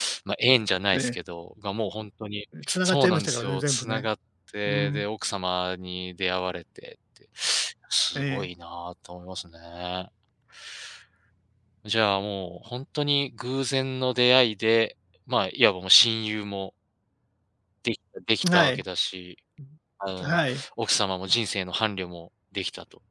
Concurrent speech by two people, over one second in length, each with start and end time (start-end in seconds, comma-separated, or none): 2.8-4.1